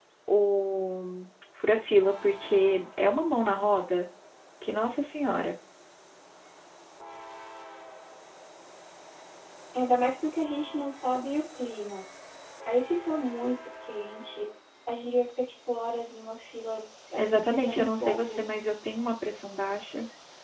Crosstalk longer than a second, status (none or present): present